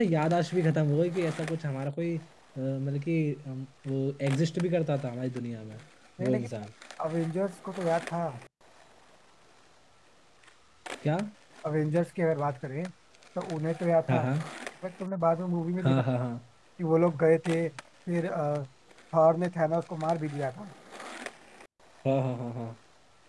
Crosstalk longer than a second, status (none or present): none